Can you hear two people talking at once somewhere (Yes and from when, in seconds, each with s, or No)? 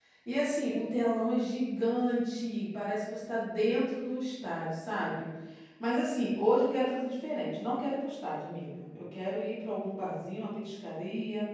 No